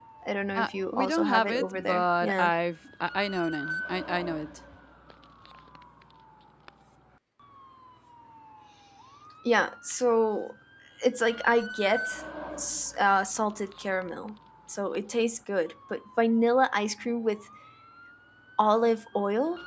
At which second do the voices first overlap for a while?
0.6 s

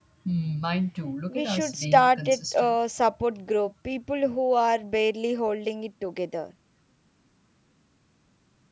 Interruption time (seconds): 1.3 s

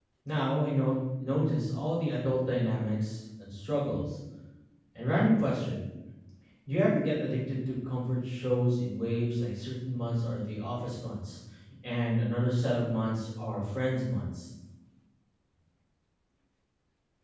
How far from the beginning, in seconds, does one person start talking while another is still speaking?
none

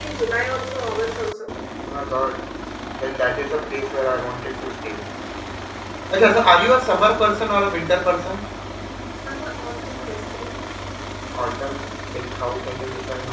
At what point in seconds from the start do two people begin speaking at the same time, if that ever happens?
none

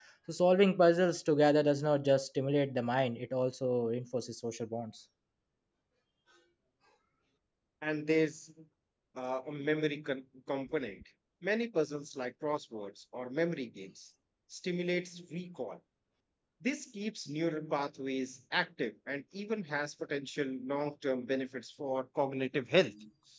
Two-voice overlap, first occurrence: none

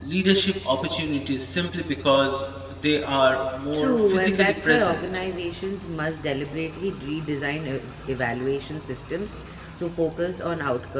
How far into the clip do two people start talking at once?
3.7 s

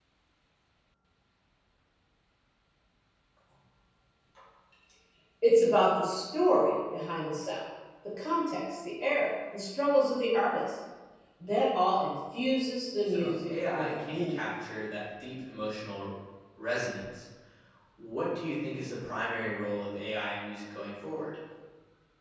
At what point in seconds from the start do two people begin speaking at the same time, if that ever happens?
13.1 s

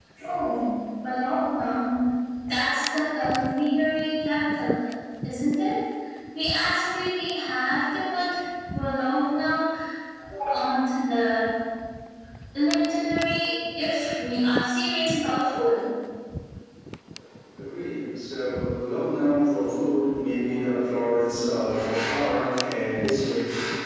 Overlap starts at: none

